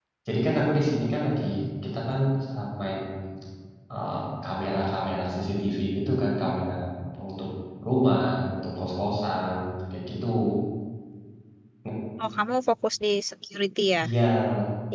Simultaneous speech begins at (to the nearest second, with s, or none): none